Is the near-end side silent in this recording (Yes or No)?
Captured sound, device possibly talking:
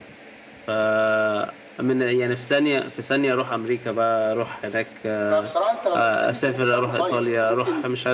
No